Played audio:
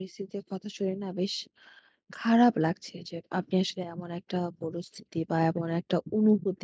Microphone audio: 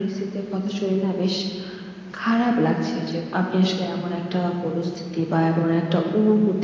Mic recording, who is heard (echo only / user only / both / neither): echo only